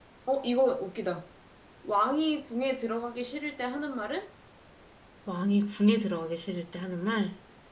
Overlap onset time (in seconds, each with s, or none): none